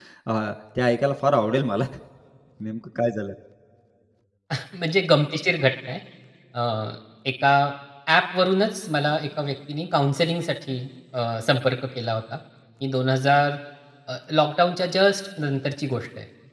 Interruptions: none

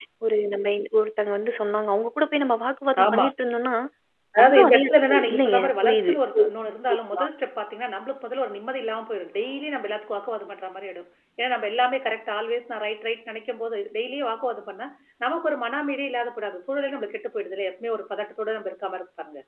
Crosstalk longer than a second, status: present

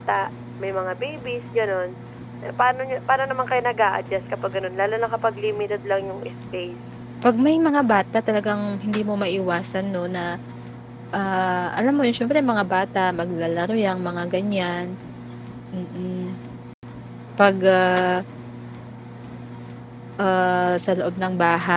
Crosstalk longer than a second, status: none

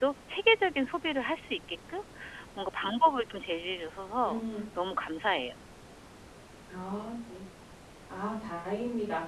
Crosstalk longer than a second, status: none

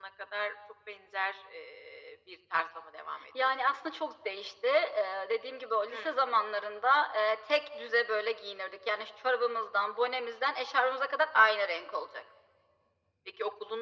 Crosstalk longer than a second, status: none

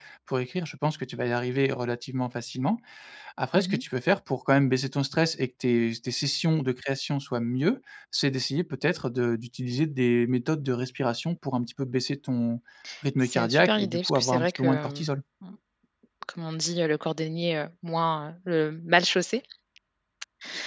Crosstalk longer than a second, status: present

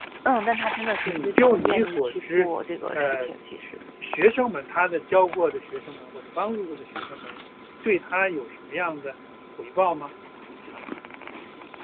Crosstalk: present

